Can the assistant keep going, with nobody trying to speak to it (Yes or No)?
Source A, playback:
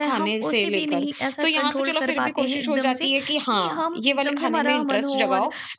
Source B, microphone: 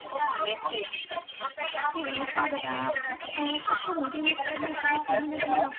No